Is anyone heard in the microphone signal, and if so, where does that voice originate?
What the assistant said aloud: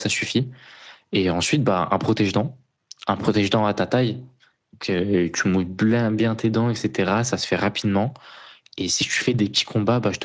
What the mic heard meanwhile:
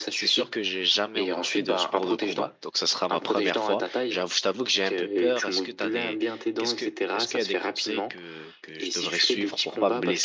both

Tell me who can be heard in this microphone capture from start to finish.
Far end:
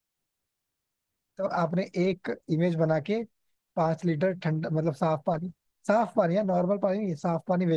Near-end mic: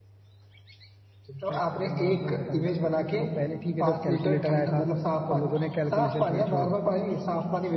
both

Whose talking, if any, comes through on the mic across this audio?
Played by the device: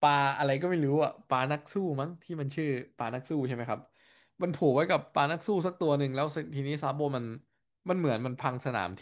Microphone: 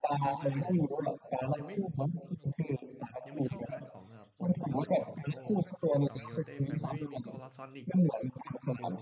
both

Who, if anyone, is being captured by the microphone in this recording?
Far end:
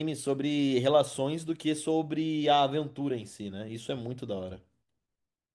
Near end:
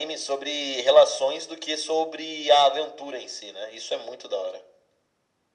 echo only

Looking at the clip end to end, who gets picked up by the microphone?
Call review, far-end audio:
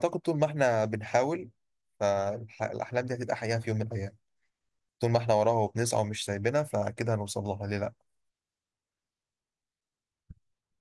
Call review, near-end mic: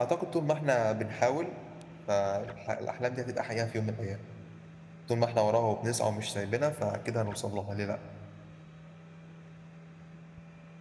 echo only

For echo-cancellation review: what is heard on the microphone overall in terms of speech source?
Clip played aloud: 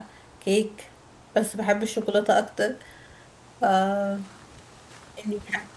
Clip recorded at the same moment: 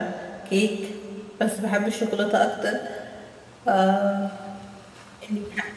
echo only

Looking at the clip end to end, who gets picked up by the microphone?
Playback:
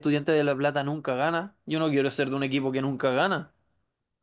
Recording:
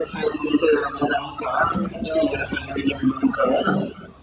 echo only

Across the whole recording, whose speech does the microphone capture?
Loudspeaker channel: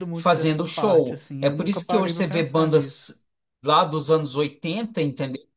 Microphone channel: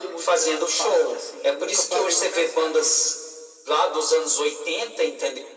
echo only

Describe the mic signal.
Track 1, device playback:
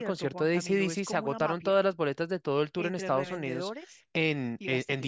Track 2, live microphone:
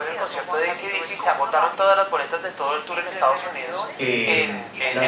both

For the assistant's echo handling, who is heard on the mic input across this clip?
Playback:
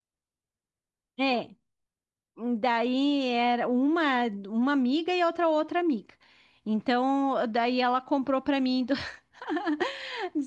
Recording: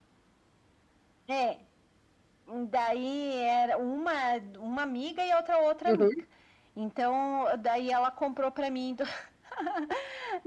both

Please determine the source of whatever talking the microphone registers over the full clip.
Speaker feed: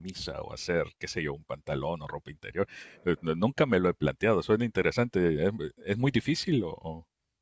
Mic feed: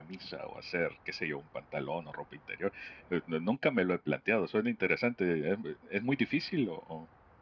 echo only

